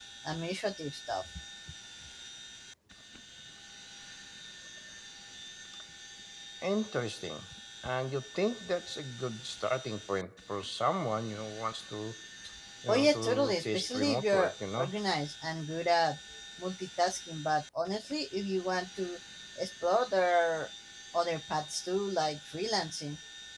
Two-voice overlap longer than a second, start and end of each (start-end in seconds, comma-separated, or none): 12.9-14.9